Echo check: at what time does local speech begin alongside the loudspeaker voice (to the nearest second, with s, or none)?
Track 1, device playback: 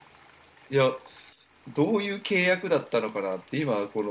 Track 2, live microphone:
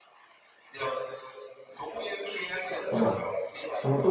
3 s